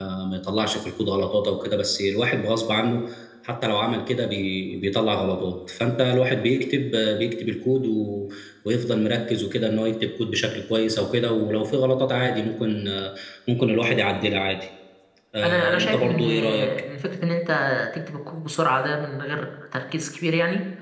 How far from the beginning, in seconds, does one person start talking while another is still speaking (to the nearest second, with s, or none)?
15 s